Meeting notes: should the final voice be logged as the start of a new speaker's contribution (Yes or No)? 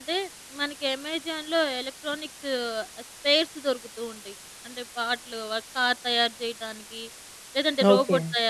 No